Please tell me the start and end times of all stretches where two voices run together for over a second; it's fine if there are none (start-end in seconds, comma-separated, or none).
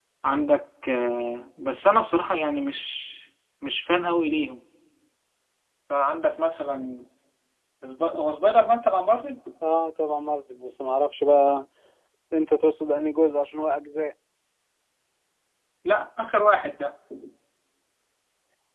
none